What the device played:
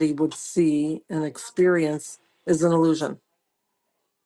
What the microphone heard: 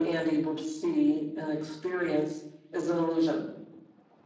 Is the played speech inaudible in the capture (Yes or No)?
No